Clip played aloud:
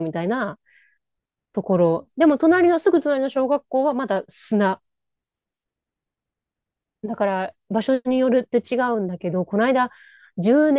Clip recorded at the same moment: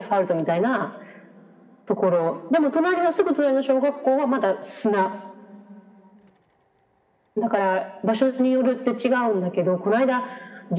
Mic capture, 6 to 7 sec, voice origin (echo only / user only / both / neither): neither